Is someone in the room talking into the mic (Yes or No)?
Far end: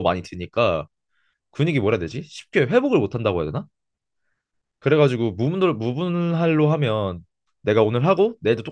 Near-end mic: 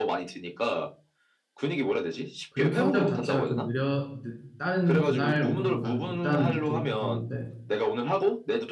Yes